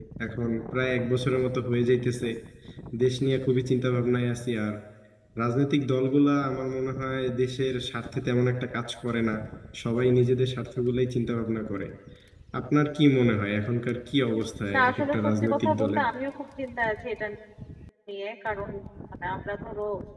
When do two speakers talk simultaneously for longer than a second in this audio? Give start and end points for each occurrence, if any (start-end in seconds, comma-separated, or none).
14.7-16.0